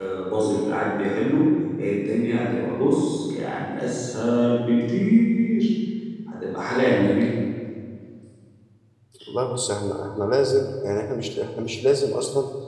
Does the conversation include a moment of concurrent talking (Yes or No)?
No